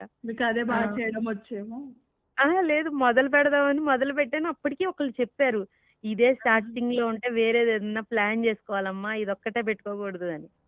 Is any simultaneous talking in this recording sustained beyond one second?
No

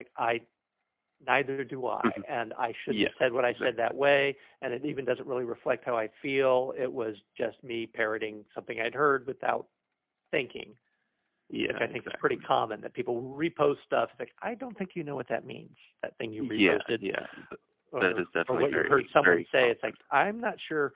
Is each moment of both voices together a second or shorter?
No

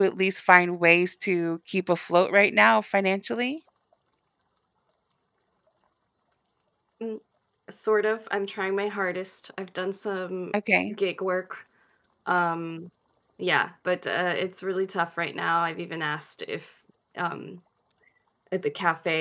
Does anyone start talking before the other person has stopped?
No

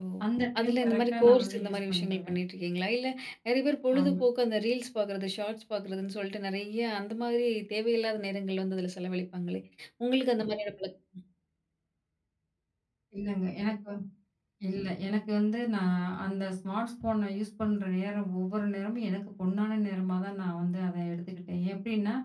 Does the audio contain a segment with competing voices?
Yes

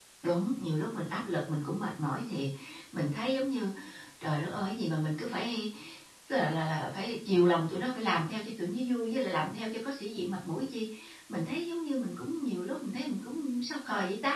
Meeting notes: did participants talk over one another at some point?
No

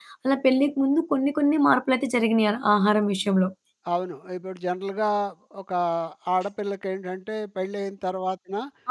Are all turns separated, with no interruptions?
Yes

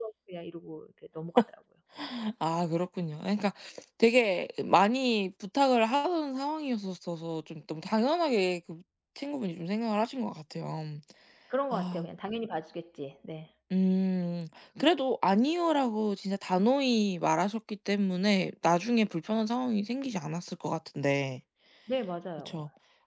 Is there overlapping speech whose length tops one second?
No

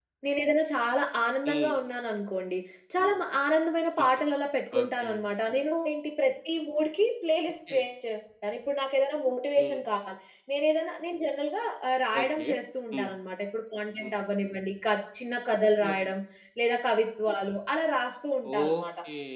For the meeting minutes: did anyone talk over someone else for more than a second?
No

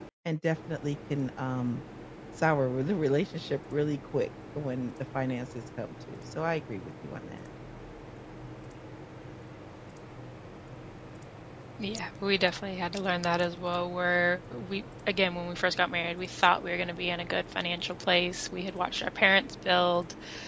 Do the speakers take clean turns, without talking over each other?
Yes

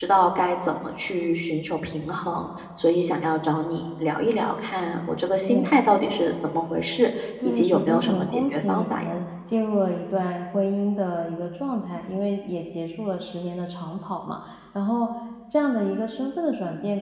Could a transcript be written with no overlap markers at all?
No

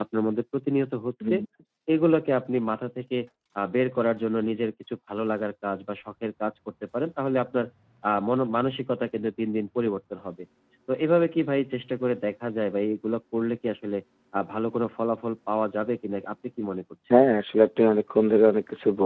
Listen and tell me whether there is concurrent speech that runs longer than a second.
No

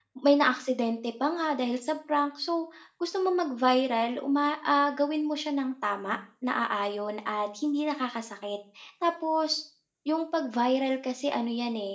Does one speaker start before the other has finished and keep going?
No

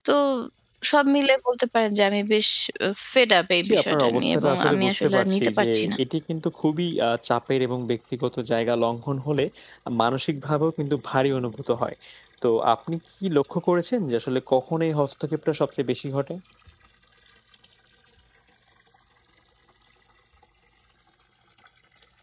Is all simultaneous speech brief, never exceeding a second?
No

